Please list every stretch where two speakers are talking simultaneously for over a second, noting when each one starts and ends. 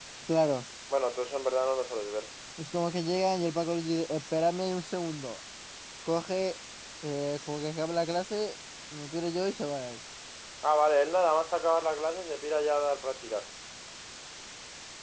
none

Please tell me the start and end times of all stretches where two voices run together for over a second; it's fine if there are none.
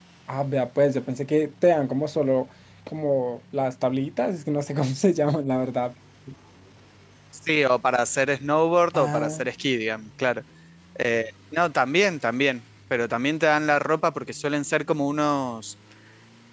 none

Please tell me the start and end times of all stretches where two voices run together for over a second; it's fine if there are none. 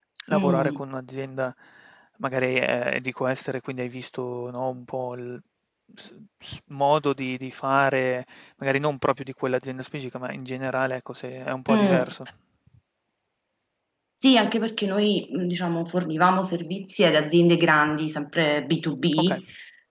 none

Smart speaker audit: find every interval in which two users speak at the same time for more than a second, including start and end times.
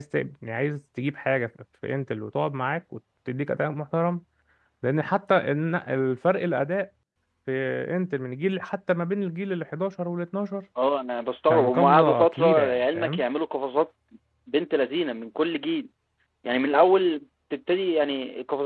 11.5-13.2

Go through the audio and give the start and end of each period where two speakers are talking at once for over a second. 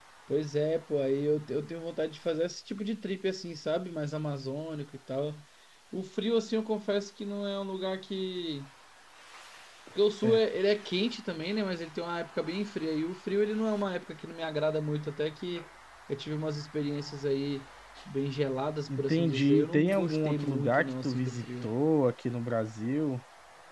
18.9-21.7

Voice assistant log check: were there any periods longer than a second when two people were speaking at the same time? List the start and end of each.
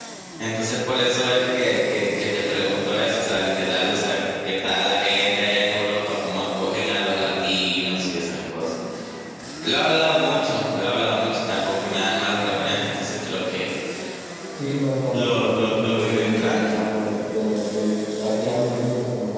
15.1-16.8

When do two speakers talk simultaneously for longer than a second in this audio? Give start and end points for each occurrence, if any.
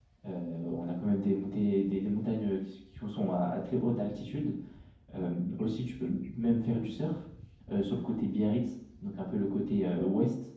none

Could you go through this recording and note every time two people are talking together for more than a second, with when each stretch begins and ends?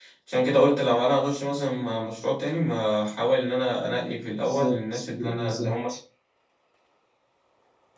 4.4-5.7

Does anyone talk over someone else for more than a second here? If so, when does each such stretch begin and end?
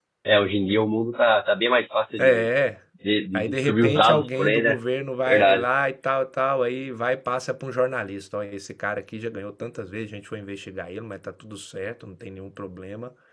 3.3-4.8

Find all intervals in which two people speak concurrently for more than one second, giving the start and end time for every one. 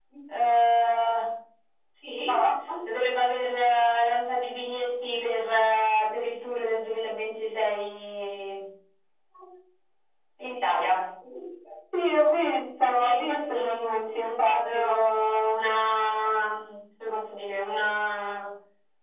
13.0-15.1

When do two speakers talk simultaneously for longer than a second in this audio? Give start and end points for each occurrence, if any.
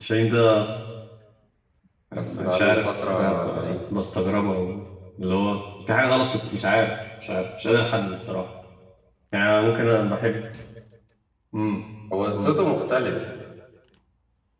2.1-3.8

